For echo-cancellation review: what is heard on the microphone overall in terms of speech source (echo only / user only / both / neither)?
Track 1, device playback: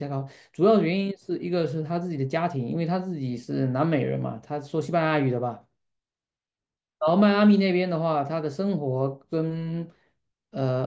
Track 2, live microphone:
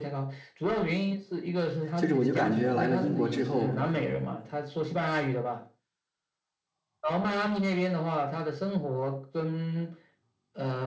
both